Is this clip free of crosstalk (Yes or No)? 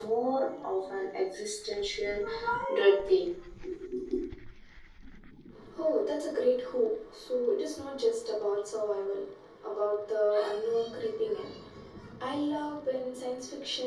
Yes